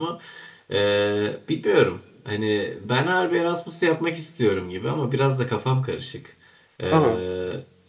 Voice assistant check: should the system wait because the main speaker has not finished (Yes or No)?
Yes